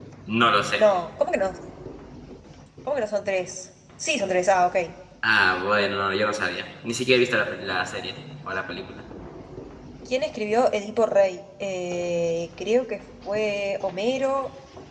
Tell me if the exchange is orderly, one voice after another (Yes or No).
Yes